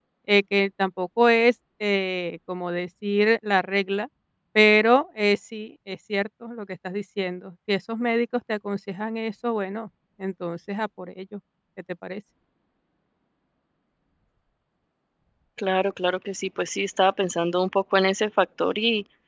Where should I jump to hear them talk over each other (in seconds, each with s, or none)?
none